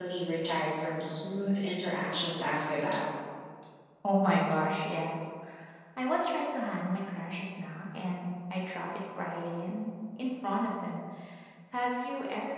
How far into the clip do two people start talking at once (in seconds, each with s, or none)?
none